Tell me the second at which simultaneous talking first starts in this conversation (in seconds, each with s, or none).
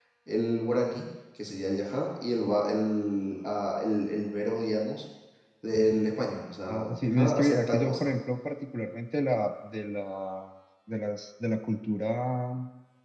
6.7 s